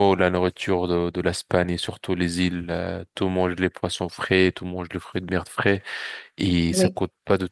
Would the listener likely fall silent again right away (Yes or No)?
Yes